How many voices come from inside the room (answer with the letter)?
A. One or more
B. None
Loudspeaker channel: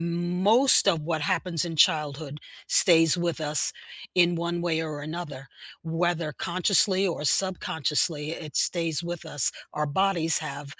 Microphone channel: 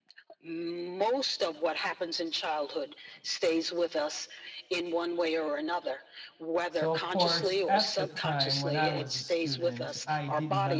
A